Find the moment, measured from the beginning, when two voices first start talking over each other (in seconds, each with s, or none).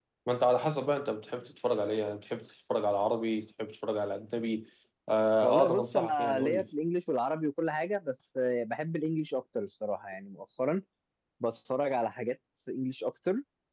5.4 s